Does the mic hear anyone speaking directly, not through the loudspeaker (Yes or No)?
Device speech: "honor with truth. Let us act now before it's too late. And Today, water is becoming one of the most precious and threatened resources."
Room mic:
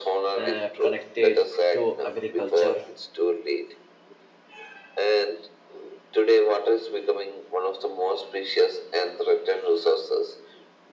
Yes